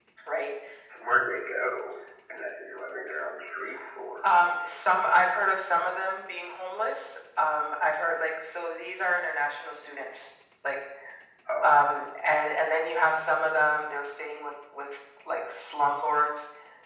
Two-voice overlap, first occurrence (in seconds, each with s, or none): none